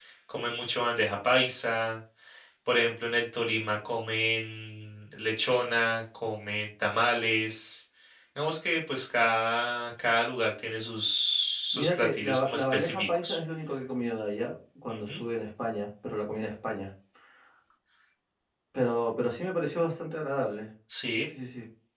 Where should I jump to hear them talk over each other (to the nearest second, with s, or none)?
12 s